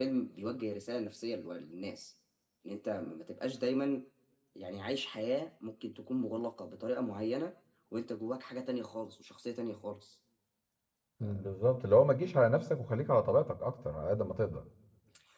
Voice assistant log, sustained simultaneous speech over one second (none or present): none